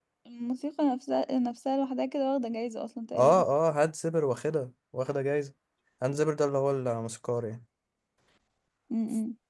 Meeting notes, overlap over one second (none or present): none